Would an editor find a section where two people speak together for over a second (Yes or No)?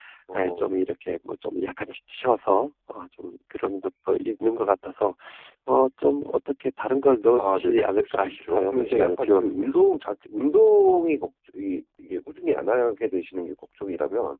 Yes